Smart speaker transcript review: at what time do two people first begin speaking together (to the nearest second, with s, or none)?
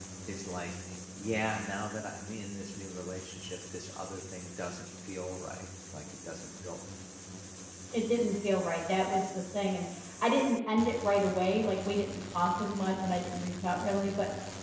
none